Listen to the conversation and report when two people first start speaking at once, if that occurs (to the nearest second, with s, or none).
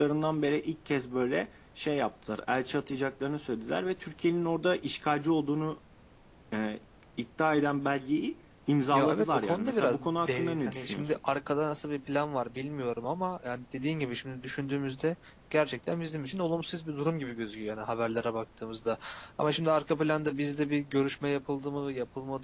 9 s